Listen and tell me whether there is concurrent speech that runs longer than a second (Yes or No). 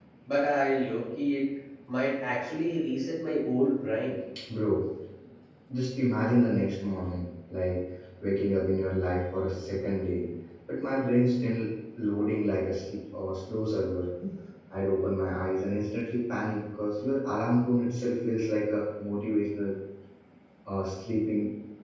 No